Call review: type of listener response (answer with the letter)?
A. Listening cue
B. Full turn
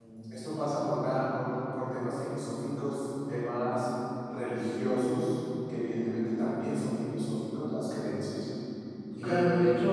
B